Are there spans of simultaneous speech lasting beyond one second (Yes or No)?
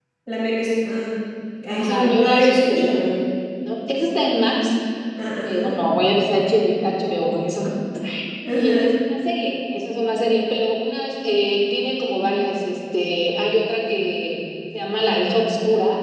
Yes